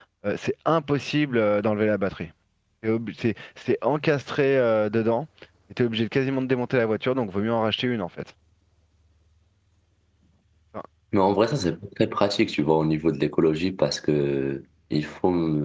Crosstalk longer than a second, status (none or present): none